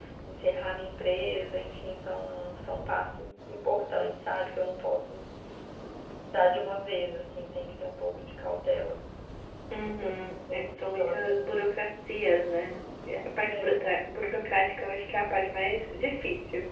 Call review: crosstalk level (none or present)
present